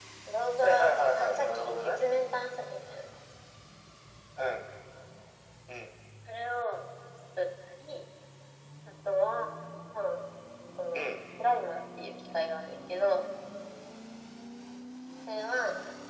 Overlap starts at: 1 s

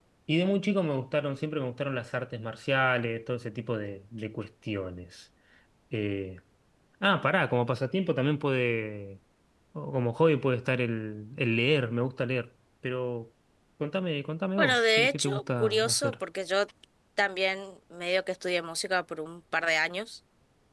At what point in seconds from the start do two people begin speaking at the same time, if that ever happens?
15 s

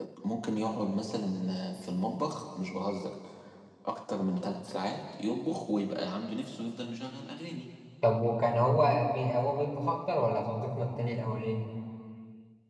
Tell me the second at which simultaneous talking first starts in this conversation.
none

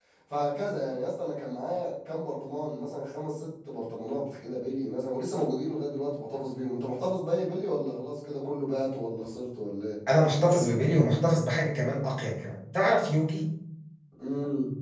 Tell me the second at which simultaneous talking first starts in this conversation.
none

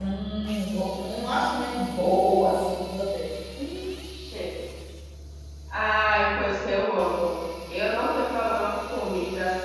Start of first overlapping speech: none

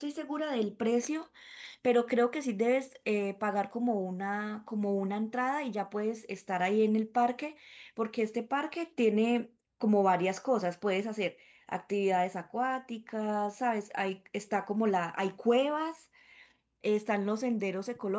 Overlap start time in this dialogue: none

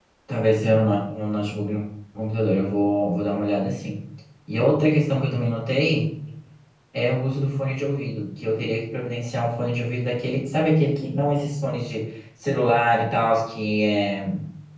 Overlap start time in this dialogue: none

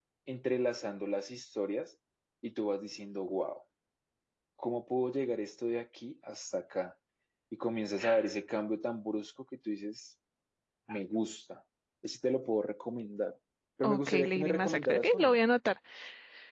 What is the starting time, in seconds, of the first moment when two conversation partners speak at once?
14 s

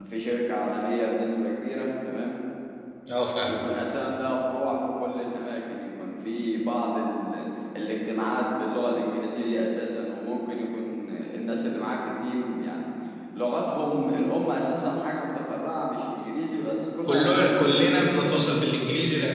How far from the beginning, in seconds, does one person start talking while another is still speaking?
17 s

